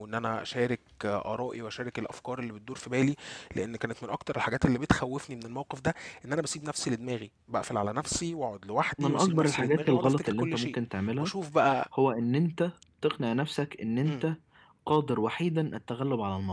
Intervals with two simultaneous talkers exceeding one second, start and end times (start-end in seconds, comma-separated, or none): 9.0-10.8